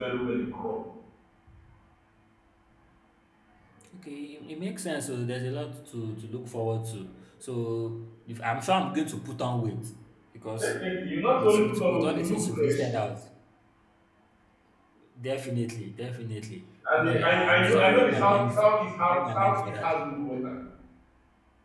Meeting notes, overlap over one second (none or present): present